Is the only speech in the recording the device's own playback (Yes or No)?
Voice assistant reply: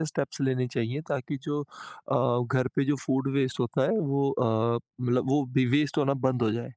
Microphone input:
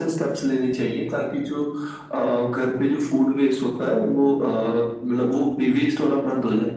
Yes